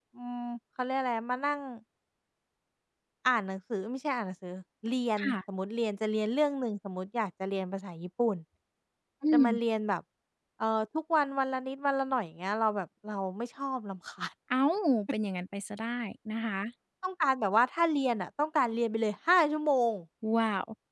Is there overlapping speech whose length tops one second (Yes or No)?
No